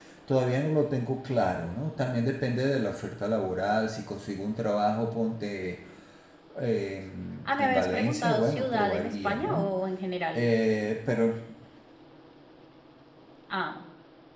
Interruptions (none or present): present